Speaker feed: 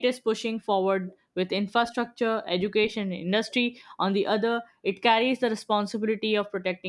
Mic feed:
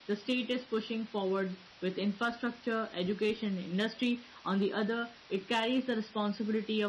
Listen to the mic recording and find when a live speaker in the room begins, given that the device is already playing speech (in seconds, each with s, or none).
none